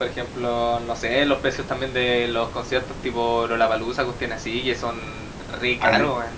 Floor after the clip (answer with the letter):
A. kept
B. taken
B